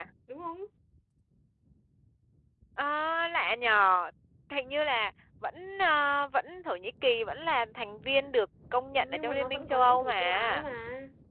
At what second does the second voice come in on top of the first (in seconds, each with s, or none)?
8.9 s